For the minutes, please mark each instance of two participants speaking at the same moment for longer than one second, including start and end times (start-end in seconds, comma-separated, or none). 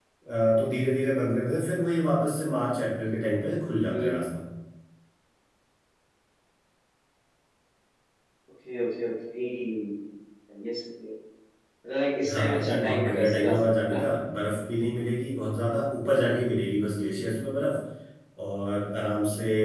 12.3-14.0